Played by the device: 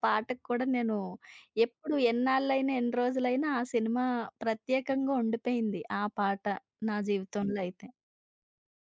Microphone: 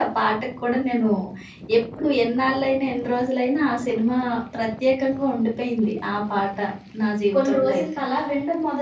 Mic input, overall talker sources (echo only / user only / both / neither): both